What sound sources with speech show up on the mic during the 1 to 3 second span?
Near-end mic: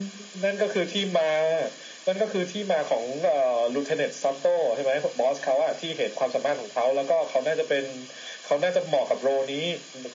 echo only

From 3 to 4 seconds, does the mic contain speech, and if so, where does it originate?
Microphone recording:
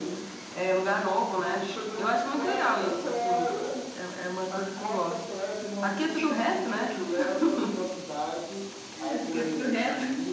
echo only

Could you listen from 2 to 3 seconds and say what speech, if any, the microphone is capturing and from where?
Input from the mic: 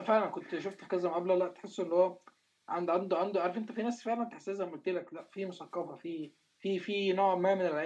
user only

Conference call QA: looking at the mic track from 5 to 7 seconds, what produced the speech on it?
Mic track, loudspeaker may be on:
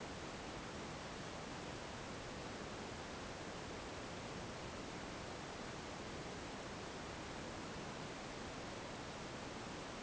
neither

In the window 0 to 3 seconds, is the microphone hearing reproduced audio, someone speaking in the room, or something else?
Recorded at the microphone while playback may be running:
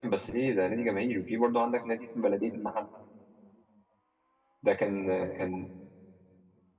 user only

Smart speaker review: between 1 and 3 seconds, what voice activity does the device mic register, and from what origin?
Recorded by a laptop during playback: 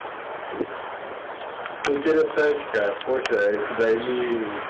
user only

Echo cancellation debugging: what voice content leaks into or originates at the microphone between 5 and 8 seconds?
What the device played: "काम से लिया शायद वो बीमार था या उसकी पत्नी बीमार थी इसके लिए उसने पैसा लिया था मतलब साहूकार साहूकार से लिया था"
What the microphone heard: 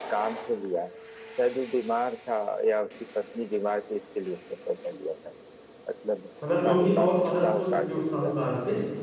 both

